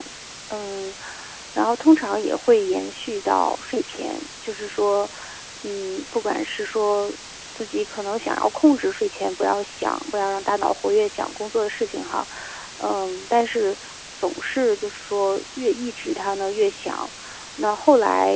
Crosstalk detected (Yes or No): No